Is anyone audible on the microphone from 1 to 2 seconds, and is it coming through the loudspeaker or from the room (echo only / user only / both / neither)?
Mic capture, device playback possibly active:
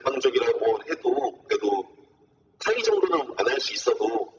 echo only